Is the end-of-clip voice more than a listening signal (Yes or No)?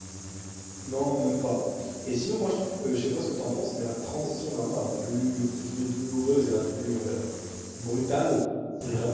No